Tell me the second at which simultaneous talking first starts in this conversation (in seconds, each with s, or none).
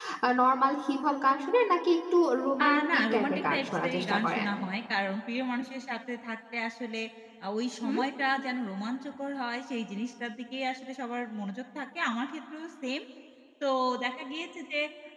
2.6 s